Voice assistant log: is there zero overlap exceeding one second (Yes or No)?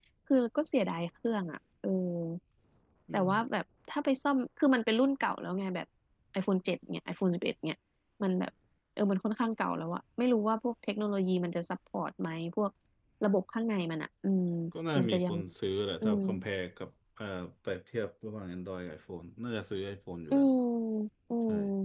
Yes